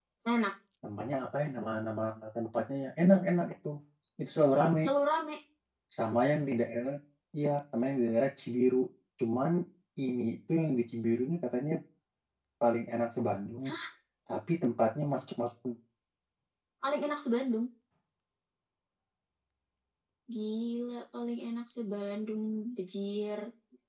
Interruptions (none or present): none